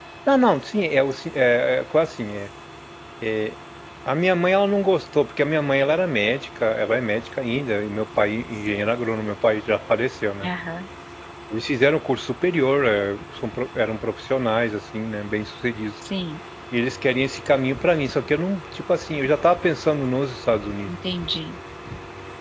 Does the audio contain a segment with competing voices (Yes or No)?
No